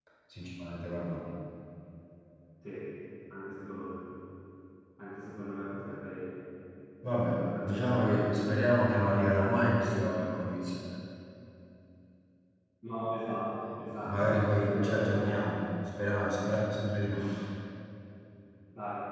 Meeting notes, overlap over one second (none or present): present